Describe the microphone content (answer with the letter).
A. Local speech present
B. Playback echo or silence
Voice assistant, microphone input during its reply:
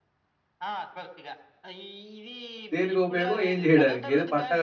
A